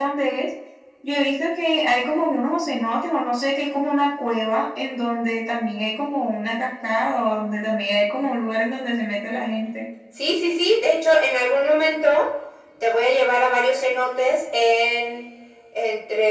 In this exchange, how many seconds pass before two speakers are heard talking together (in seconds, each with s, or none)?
none